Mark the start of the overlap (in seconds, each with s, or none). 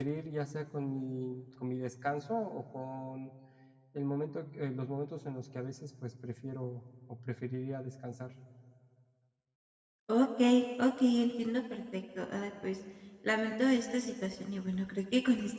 none